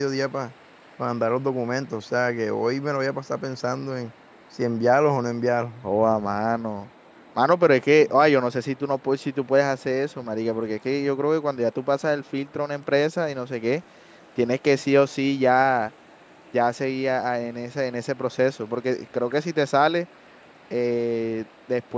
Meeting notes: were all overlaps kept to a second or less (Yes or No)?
Yes